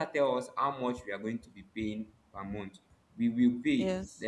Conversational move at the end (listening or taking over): listening